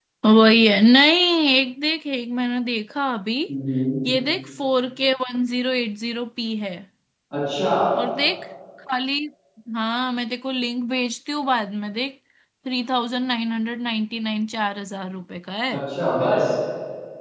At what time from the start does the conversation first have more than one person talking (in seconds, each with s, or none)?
none